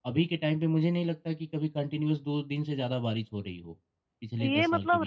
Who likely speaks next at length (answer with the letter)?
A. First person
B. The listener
B